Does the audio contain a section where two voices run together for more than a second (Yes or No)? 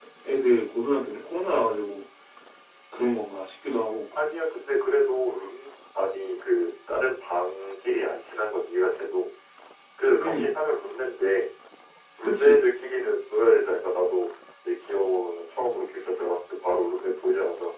No